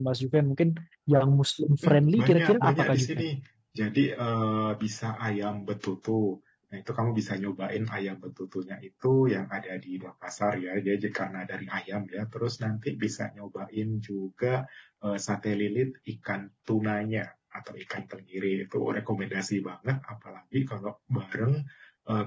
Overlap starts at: 1.9 s

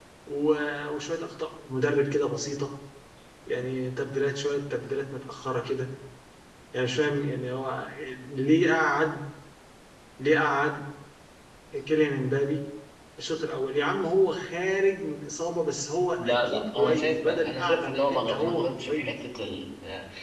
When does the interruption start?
16.2 s

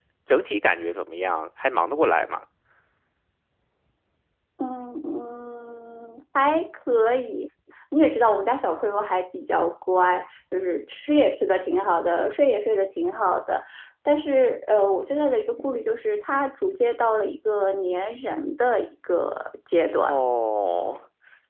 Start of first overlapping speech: none

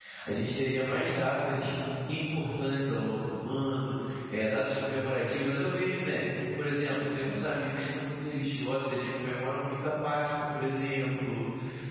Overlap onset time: none

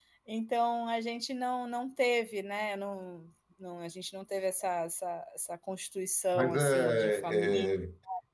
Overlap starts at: 6.3 s

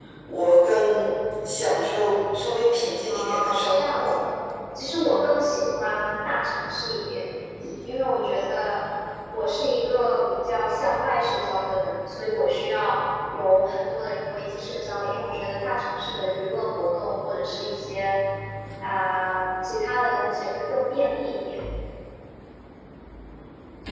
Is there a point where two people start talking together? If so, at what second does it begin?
3.1 s

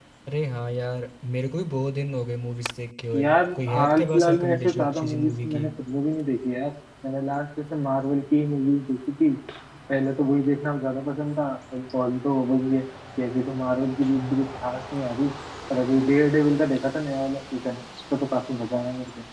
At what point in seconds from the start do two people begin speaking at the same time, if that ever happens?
3.1 s

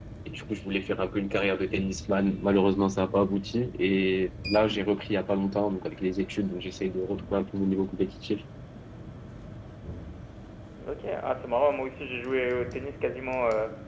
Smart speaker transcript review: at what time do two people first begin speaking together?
none

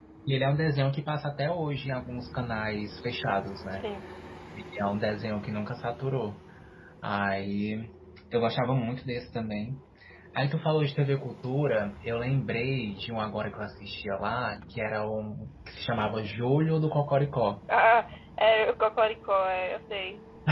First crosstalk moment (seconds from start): none

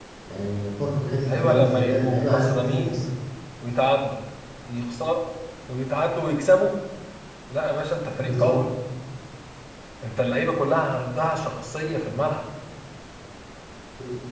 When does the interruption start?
1.3 s

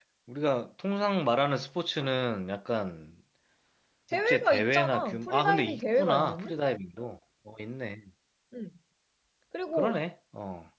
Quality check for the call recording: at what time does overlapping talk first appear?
4.3 s

